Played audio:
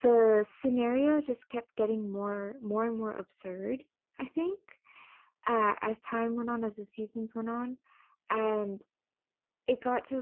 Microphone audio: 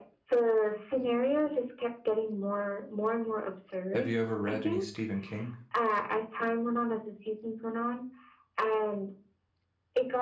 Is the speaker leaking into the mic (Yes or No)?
Yes